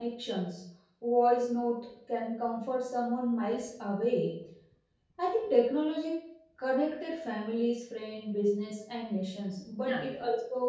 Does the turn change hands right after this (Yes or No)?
No